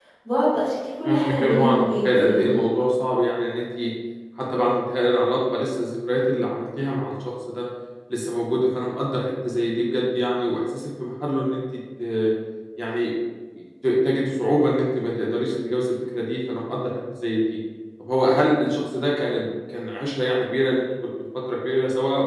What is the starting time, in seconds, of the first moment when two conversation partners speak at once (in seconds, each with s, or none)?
1.1 s